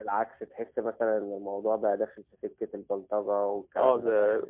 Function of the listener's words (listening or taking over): taking over